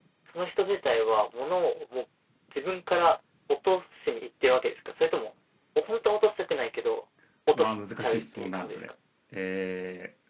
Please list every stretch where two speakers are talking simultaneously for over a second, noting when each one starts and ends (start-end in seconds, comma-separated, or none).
7.5-8.9